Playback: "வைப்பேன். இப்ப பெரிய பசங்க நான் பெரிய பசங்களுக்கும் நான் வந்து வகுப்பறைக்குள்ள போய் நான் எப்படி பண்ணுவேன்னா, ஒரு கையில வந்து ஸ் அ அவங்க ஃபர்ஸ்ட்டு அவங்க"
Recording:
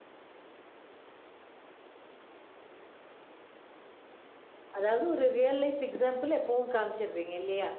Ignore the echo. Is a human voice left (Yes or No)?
Yes